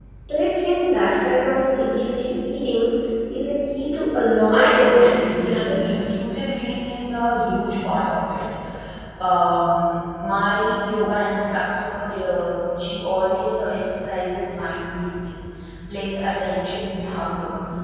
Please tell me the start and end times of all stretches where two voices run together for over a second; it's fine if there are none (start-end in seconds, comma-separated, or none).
4.5-6.0